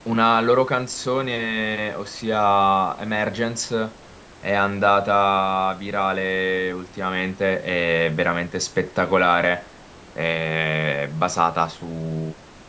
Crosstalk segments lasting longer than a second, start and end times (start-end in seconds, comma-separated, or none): none